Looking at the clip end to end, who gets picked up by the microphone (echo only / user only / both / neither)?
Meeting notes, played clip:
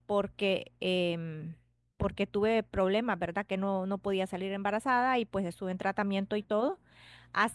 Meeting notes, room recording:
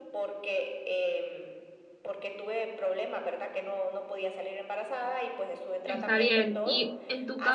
both